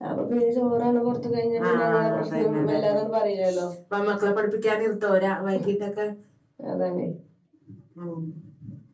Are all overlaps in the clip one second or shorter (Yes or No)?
No